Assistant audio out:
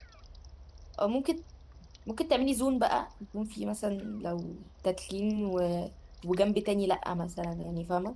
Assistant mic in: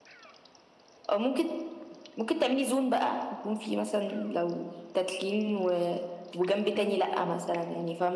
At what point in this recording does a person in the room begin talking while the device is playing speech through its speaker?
6.8 s

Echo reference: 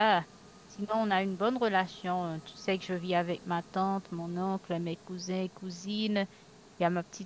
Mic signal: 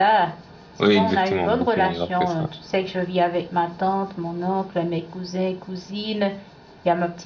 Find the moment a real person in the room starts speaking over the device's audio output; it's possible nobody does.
0.8 s

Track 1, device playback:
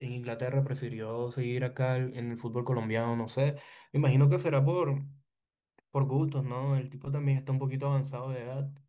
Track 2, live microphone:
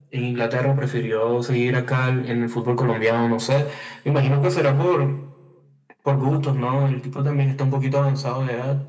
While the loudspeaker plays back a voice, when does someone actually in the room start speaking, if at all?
none

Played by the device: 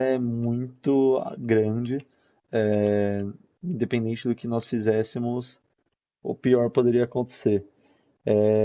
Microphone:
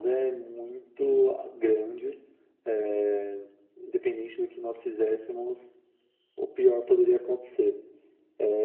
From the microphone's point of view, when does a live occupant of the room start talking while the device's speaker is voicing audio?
none

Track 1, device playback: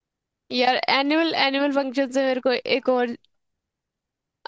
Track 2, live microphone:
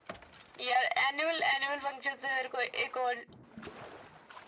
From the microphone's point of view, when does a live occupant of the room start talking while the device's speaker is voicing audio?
none

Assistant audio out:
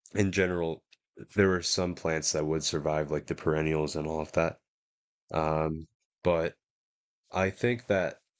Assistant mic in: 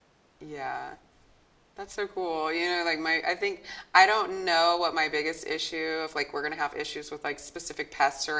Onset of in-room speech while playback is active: 0.4 s

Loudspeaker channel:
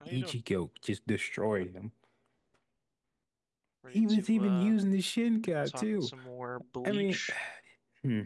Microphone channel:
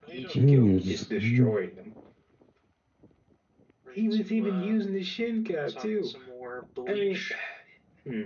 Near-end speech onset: 0.3 s

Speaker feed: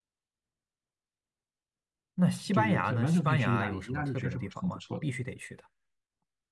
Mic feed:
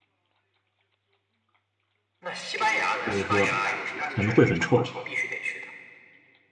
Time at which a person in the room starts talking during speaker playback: 3.0 s

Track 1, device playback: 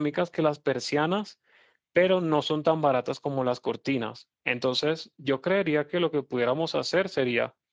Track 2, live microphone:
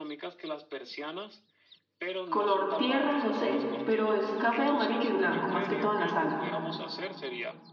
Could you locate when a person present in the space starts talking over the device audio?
2.3 s

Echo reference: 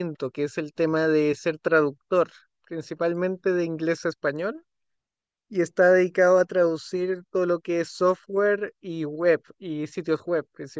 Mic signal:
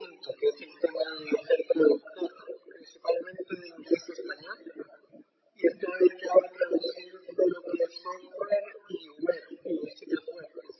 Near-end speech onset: none

